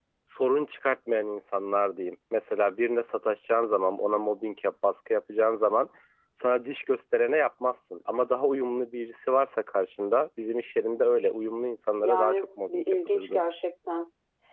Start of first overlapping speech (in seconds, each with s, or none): 12.0 s